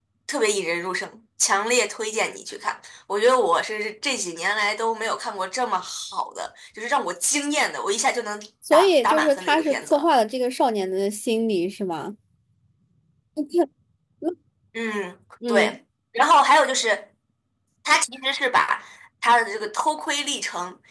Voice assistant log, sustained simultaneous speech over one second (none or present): present